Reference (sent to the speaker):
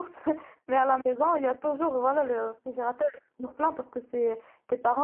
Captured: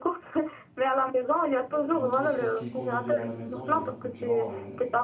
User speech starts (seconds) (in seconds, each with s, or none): 1.7 s